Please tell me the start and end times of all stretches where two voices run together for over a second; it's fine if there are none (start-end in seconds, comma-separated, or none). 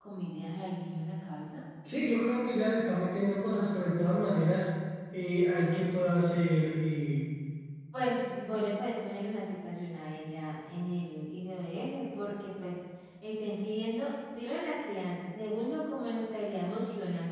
none